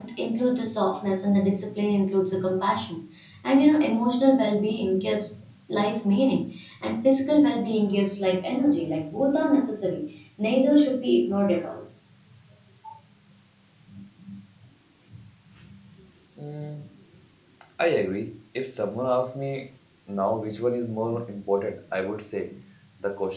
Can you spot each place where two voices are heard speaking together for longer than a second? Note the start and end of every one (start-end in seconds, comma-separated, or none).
none